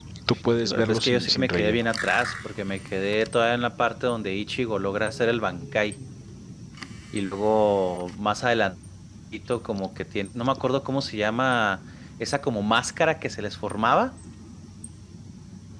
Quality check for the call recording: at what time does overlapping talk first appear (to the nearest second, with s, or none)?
1 s